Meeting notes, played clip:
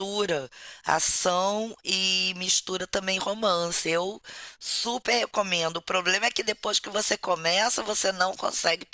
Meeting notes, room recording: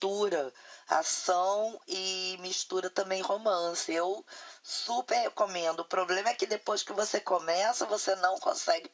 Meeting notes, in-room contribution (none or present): none